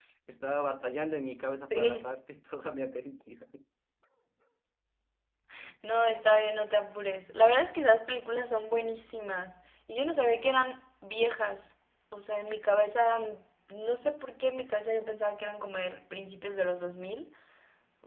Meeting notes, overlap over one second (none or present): none